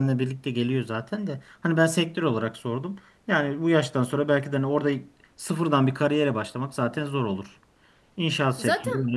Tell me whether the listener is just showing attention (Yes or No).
Yes